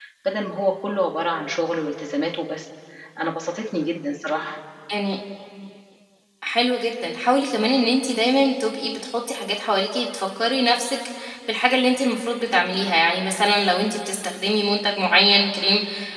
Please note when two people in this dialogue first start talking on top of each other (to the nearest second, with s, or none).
none